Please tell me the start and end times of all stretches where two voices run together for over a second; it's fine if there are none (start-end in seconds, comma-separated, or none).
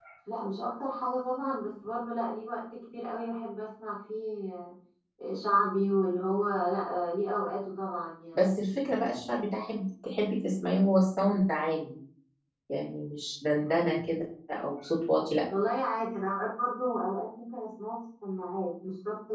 none